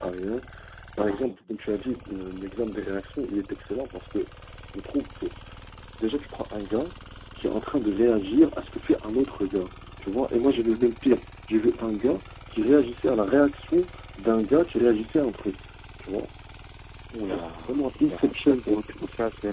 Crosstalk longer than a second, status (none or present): present